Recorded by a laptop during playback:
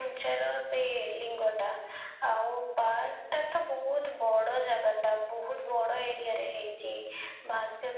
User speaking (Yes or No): No